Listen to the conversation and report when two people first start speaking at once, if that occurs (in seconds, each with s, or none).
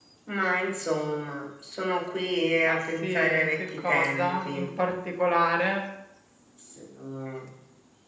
2.7 s